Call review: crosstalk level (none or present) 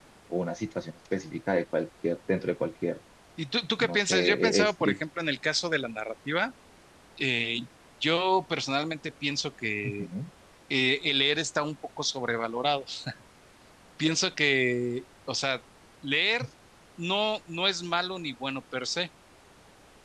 present